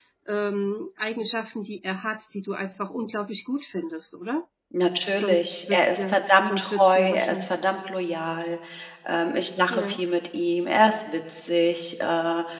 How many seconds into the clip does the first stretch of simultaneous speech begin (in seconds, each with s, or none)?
5.1 s